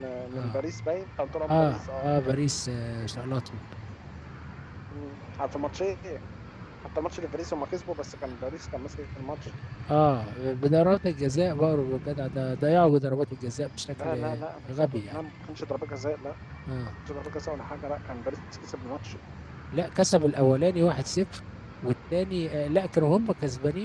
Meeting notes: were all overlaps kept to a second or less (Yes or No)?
No